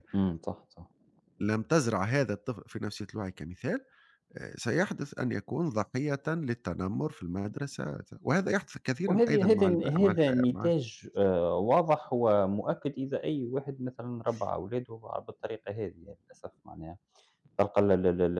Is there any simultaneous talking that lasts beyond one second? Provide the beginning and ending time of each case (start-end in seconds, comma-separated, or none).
9.1-10.7